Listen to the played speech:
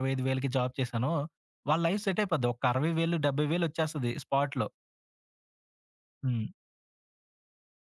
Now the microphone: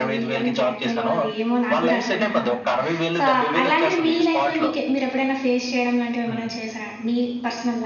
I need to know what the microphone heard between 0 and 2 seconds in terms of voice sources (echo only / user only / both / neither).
both